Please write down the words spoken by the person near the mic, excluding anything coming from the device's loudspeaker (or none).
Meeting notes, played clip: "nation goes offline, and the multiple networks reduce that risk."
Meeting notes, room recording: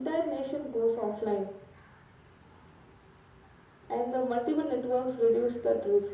none